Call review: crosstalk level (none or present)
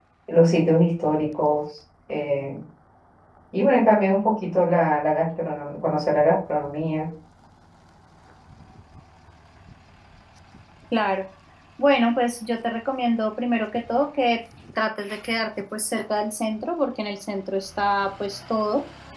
none